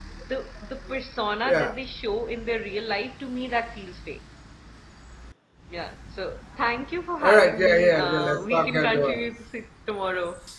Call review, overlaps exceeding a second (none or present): present